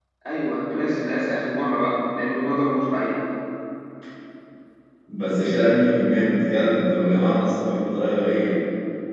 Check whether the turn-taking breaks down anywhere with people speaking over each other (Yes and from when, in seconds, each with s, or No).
No